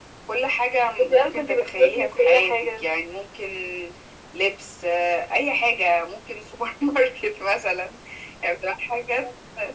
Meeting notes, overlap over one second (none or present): present